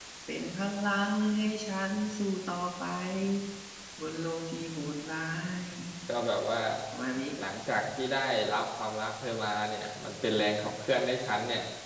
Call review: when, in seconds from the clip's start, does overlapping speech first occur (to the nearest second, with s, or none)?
none